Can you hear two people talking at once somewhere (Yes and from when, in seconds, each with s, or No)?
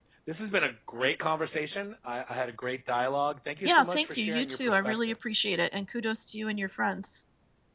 Yes, from 3.6 s